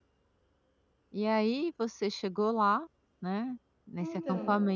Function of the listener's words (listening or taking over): listening